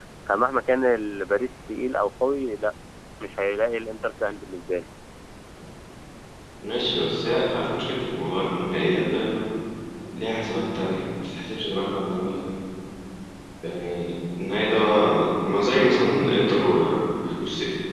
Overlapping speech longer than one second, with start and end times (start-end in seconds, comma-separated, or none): none